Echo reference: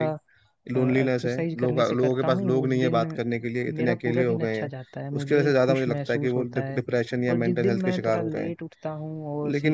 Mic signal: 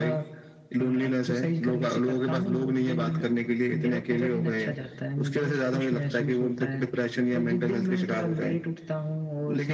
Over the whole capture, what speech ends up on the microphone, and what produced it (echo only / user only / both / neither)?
echo only